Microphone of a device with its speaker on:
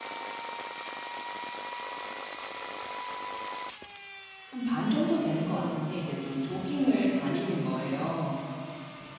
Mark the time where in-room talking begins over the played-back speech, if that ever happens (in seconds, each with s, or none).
4.5 s